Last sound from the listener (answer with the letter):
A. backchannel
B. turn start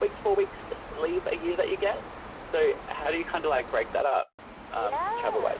B